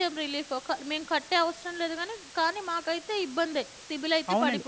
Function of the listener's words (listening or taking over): taking over